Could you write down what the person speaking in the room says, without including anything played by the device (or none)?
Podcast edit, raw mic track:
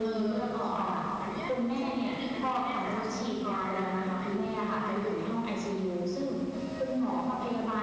none